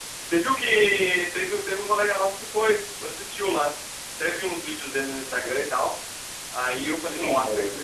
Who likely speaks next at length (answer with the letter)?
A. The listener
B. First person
B